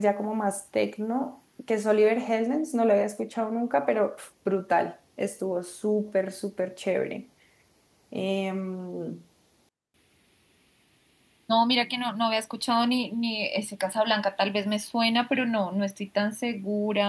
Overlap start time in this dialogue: none

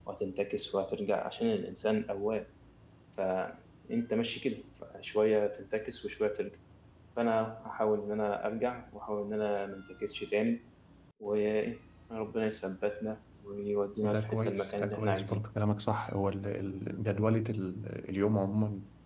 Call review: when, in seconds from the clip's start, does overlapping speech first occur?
14.0 s

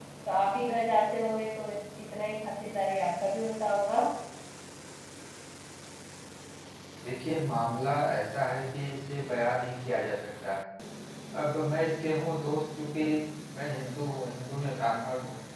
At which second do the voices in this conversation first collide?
none

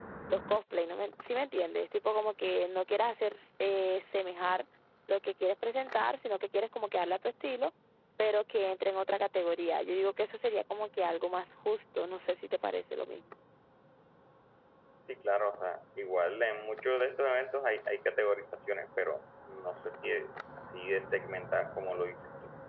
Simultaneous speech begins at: none

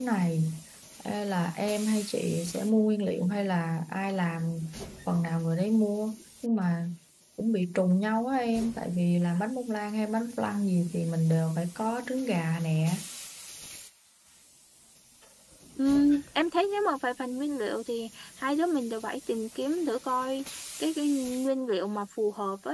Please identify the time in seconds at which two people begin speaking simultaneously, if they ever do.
none

